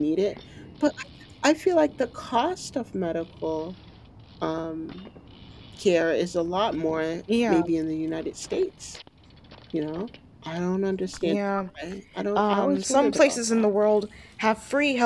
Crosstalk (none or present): present